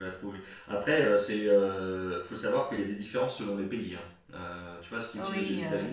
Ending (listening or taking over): listening